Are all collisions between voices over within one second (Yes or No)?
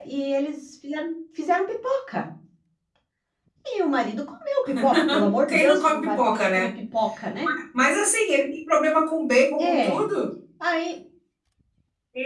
No